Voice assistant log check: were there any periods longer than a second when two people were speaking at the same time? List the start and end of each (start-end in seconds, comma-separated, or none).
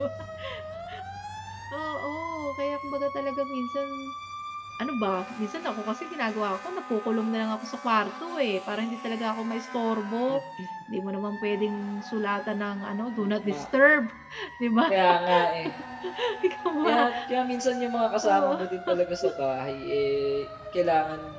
none